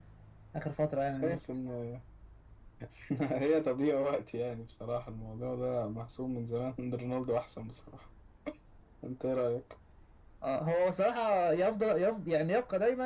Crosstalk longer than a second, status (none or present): none